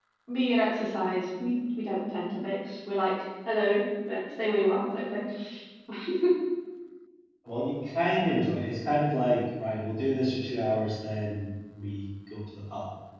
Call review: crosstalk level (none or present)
none